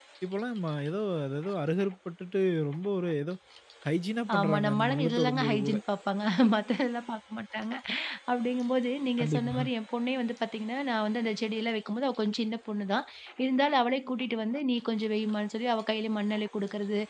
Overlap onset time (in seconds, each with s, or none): 4.4 s